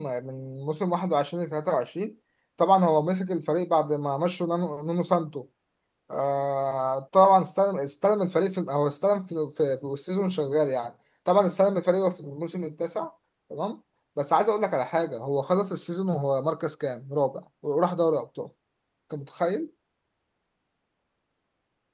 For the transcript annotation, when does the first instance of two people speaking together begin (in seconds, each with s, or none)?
none